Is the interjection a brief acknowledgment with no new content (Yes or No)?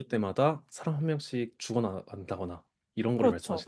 No